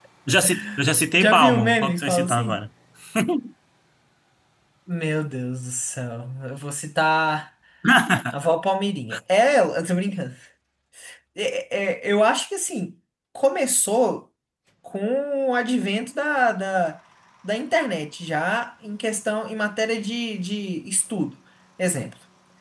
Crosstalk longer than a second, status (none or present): present